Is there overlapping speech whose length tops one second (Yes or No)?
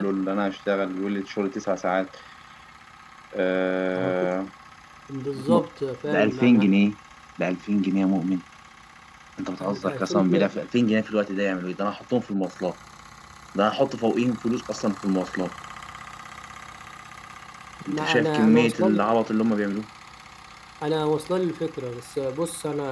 Yes